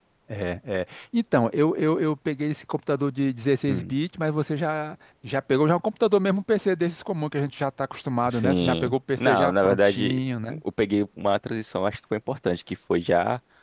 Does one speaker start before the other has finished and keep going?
Yes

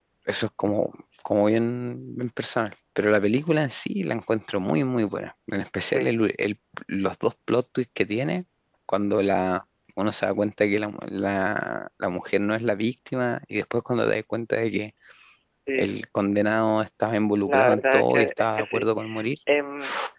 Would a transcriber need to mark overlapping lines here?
Yes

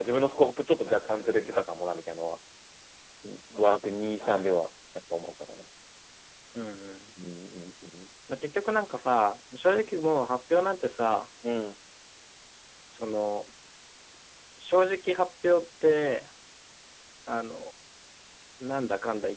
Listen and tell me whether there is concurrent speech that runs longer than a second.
No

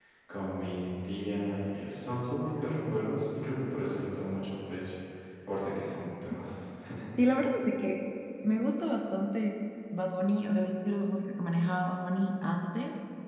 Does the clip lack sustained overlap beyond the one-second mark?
Yes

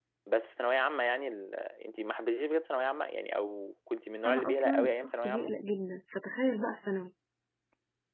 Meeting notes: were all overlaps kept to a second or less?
No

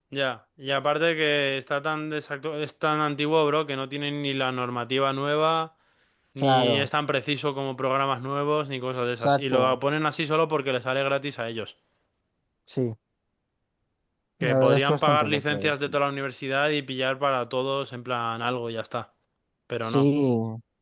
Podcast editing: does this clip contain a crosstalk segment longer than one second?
Yes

